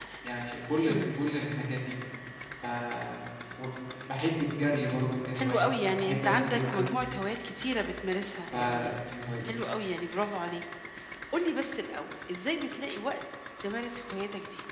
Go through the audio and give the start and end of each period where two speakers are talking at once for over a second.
5.3-6.9

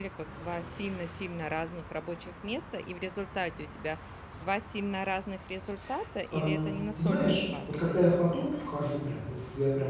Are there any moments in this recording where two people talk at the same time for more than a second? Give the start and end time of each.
6.3-8.3

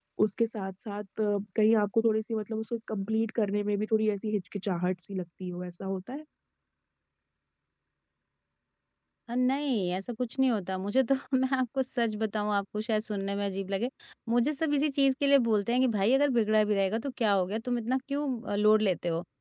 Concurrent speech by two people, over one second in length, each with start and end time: none

